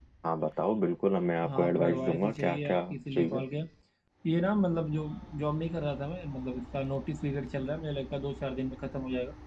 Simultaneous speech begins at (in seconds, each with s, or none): 1.4 s